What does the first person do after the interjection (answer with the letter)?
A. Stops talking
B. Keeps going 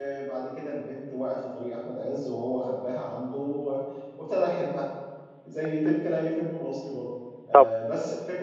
B